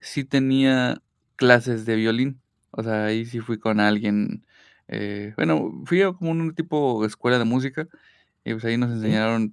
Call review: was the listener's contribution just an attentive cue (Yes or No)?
Yes